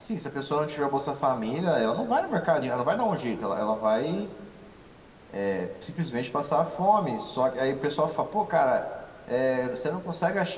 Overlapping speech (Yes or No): No